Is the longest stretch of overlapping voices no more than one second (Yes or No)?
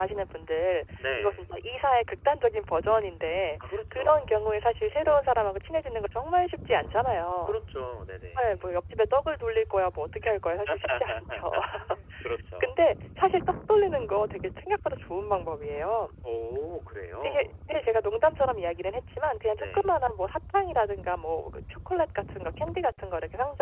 No